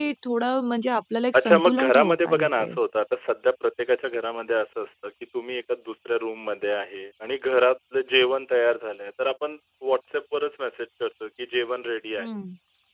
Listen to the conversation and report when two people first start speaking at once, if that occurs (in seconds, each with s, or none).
1.3 s